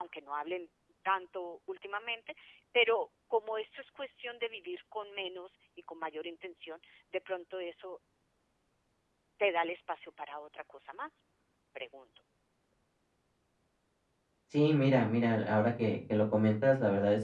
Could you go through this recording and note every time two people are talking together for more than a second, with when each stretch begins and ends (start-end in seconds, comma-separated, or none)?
none